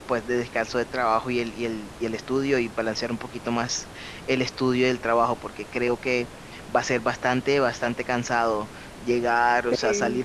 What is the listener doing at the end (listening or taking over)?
listening